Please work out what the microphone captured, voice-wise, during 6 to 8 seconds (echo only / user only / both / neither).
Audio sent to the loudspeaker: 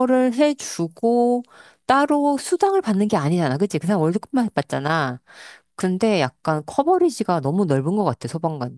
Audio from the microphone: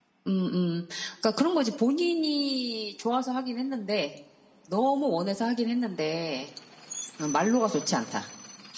user only